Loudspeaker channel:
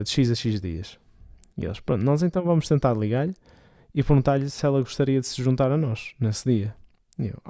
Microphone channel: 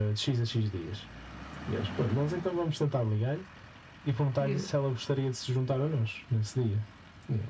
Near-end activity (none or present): present